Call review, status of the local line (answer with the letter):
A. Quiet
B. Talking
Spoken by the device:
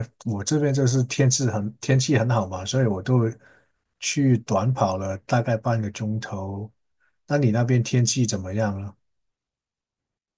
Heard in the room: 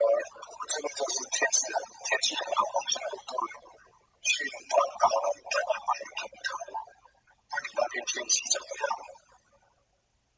A